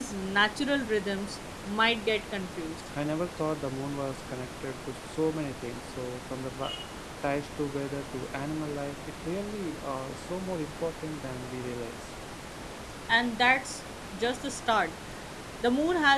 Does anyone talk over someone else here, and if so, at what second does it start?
none

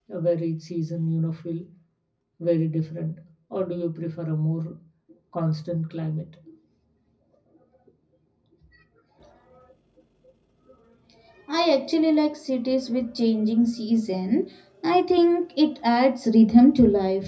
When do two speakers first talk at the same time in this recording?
none

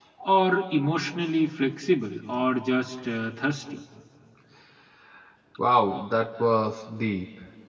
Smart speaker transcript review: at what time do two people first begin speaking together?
none

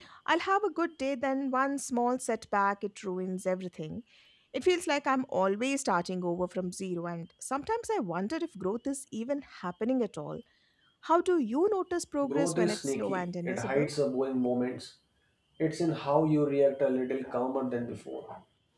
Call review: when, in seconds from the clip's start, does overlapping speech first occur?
12 s

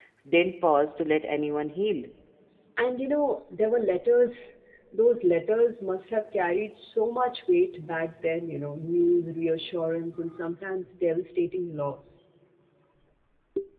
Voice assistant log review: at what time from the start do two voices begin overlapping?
none

